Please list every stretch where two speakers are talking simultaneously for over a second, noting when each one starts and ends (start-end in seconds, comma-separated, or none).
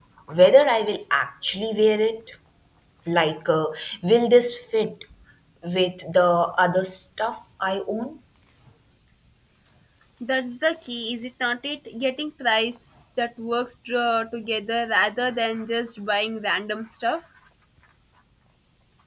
none